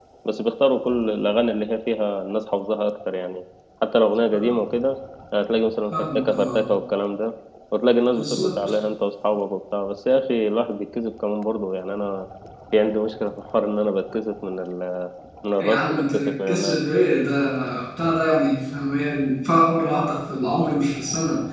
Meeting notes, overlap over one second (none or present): present